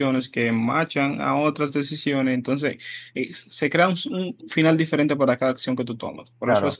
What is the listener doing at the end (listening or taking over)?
listening